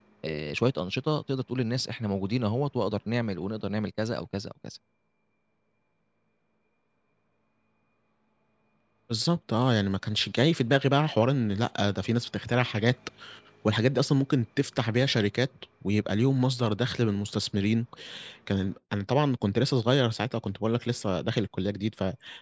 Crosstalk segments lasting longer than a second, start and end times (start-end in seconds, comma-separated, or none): none